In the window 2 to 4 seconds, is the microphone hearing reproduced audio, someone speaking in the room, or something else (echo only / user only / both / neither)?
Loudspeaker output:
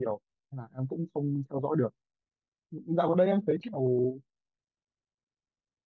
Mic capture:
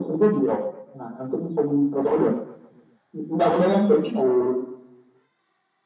echo only